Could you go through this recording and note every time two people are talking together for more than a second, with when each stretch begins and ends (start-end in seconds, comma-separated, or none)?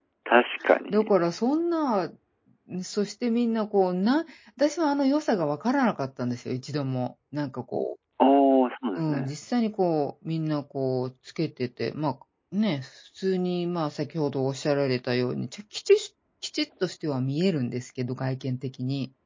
none